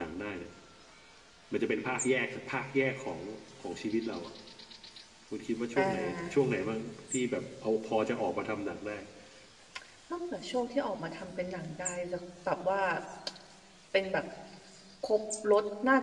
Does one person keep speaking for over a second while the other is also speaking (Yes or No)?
No